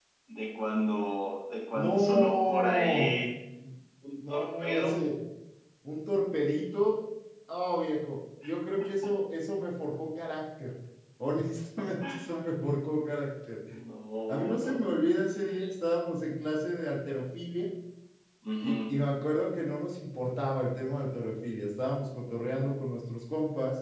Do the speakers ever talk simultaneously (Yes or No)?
Yes